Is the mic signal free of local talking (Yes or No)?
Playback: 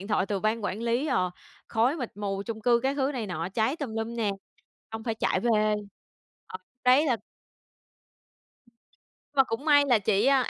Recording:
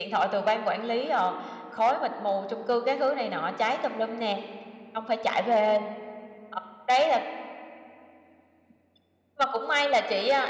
Yes